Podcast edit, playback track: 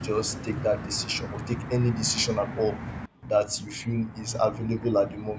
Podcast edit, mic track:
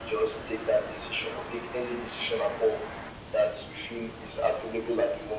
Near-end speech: none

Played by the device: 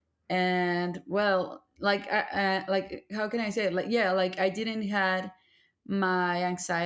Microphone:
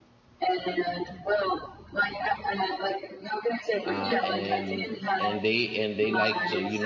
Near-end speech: present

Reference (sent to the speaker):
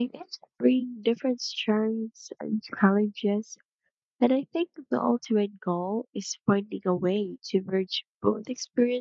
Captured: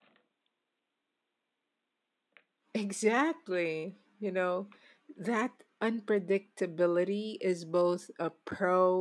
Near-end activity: present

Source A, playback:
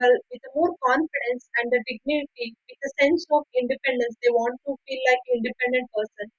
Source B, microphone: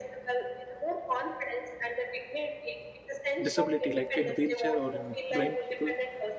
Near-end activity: present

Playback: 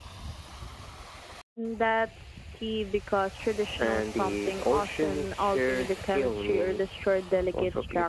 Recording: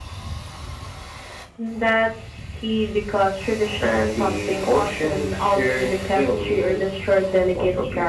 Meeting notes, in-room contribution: none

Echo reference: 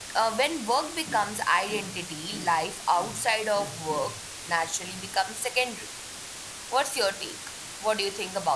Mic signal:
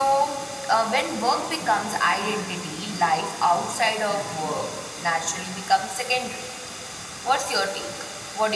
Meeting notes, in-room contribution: none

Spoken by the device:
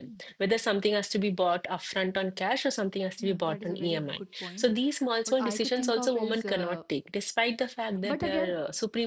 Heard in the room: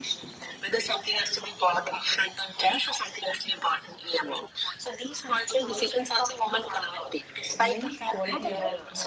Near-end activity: present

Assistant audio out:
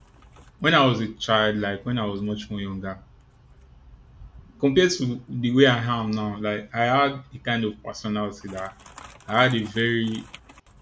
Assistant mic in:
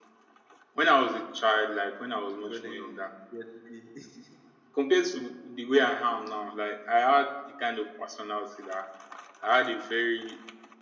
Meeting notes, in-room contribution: present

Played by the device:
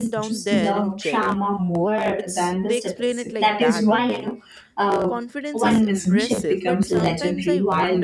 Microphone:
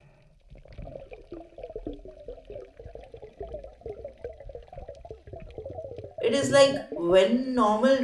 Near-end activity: present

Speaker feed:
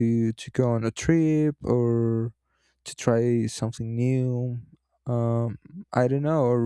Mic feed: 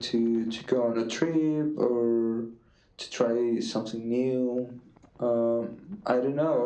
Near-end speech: none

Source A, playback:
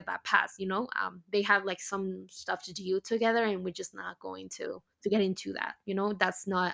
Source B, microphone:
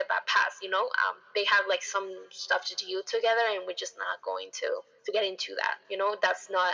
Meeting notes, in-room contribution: none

